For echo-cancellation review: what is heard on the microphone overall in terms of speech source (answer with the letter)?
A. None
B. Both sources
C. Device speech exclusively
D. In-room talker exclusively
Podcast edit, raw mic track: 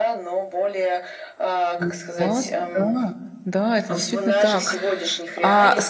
B